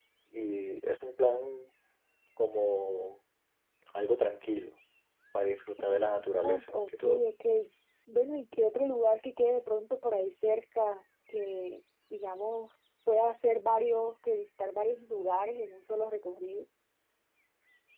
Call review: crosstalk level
present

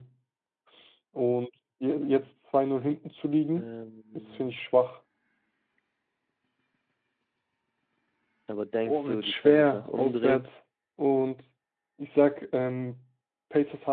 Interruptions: present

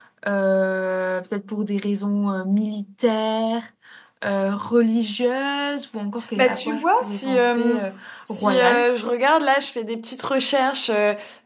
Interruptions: present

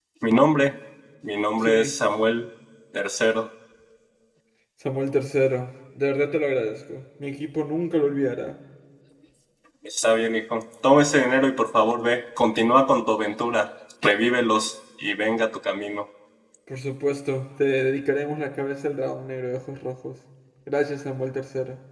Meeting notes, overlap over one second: none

